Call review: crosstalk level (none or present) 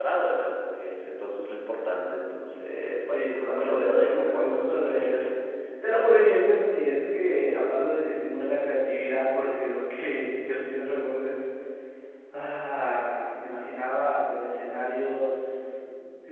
present